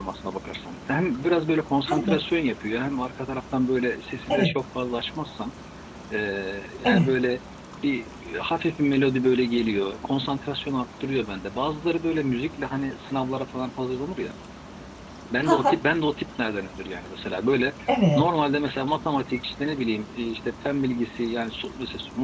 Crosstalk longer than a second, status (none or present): none